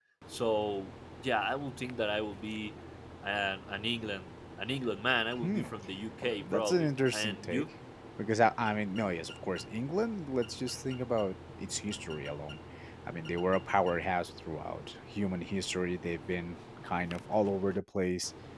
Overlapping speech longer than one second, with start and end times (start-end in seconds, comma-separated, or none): 6.4-7.7